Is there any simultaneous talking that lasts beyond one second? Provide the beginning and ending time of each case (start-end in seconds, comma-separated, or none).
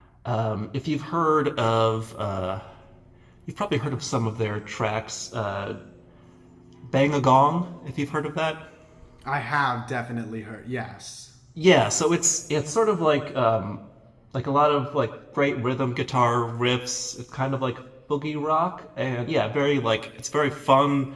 none